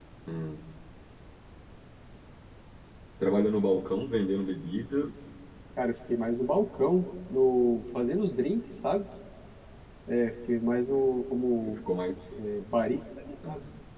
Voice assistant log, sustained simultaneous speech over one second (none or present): none